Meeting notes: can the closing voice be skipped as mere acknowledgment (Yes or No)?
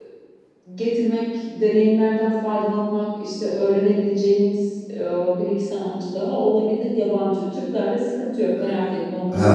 No